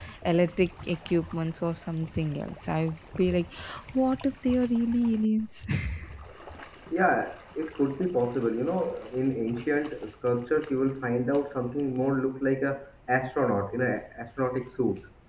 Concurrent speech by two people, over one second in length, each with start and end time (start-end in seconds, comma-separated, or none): none